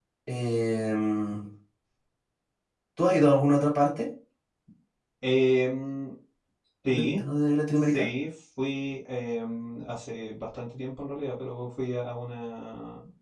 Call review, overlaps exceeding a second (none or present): none